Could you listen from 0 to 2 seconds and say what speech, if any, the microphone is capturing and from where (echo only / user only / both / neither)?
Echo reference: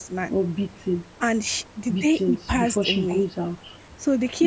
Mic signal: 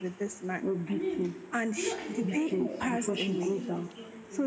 both